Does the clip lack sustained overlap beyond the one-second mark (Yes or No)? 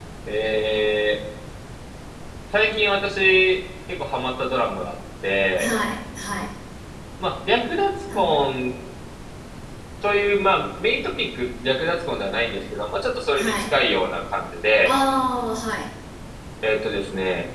Yes